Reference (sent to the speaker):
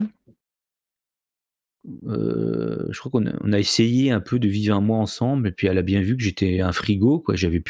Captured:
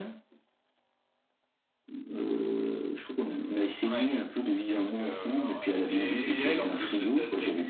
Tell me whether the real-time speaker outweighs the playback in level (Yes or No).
No